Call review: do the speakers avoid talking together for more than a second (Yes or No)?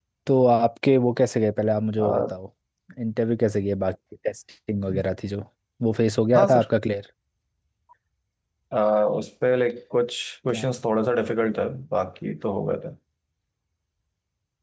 Yes